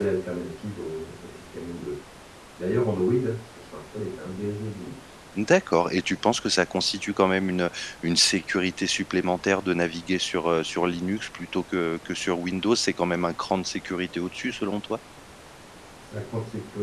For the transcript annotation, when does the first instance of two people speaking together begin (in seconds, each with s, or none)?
none